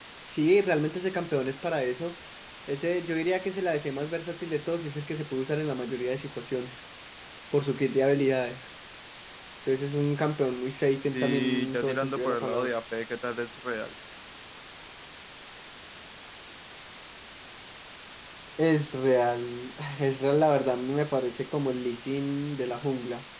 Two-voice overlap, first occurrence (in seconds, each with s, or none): 11.1 s